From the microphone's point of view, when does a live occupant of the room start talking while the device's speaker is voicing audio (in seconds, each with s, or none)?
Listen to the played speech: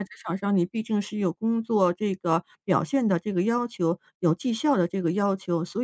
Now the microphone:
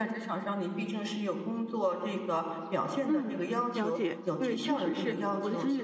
3.1 s